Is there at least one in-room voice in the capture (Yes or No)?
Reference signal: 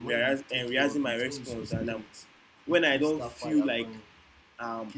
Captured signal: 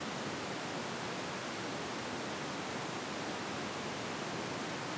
No